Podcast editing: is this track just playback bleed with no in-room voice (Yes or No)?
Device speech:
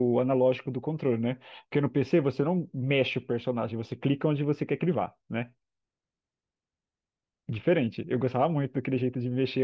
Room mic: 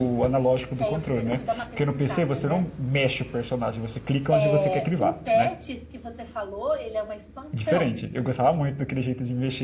No